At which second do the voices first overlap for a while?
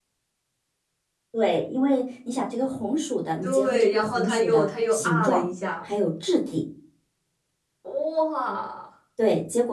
3 s

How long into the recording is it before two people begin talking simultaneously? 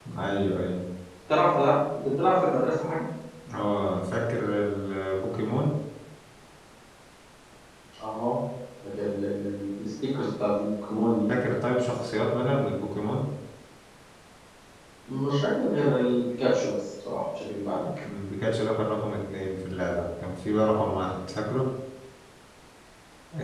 none

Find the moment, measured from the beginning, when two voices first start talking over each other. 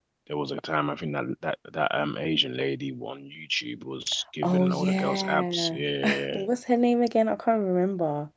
4 s

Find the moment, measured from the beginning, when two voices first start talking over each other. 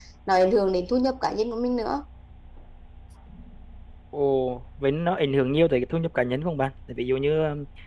none

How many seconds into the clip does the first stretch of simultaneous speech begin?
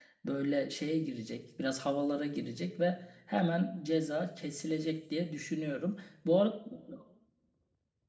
none

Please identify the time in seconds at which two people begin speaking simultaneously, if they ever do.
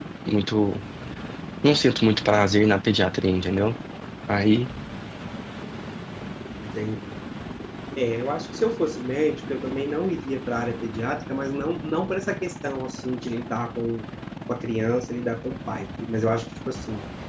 none

